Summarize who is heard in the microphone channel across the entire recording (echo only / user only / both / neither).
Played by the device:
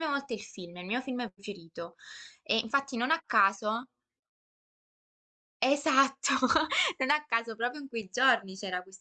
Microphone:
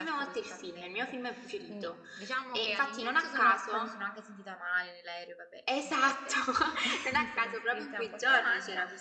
both